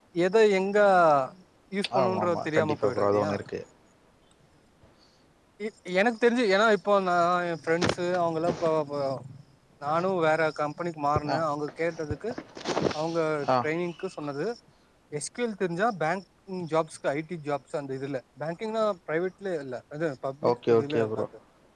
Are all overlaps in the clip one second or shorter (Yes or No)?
No